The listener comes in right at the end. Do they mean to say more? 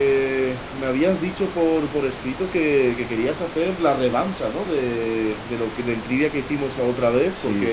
Yes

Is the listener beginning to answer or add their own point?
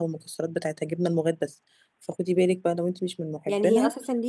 Yes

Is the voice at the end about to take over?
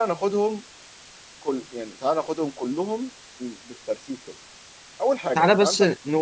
Yes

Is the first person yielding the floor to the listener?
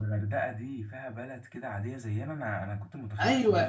Yes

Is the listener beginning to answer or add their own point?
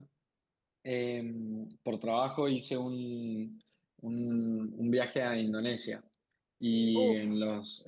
No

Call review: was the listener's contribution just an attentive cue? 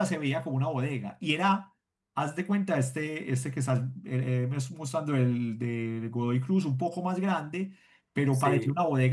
Yes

